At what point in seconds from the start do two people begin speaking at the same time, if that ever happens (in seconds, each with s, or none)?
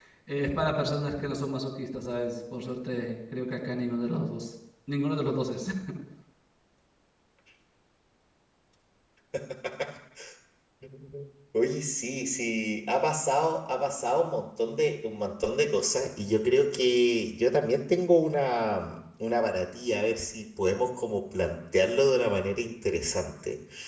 none